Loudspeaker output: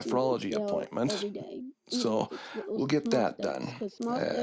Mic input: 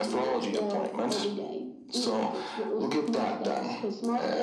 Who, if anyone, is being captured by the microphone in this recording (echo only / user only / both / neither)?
echo only